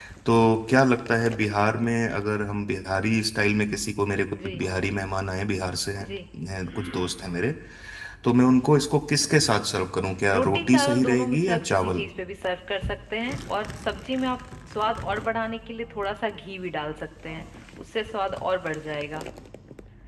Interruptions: present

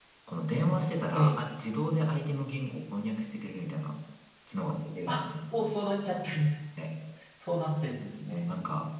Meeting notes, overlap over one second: none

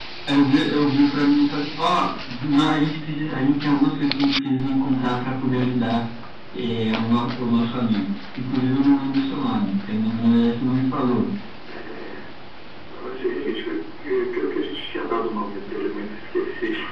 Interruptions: none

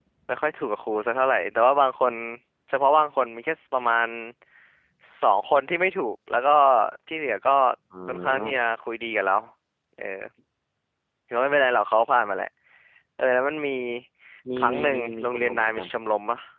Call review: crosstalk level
present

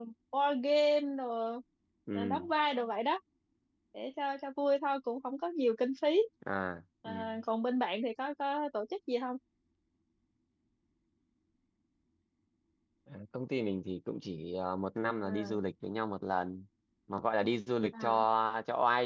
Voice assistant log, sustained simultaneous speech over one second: none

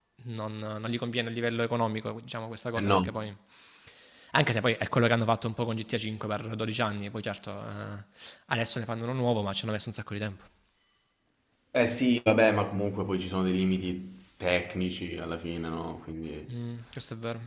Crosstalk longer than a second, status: none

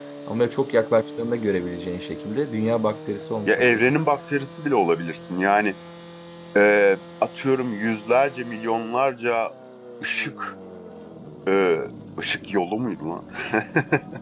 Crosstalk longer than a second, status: none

